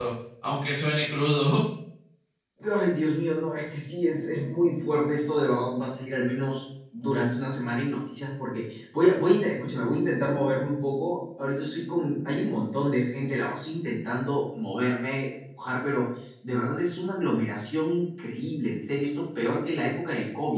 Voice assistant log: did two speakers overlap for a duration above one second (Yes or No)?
No